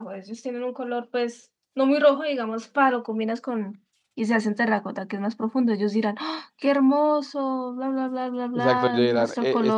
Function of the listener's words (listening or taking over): taking over